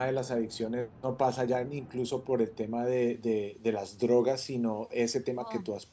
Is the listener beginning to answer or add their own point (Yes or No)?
No